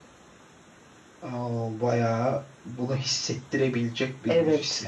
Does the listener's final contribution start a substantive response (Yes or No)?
Yes